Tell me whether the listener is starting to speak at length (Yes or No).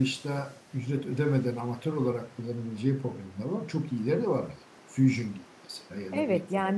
Yes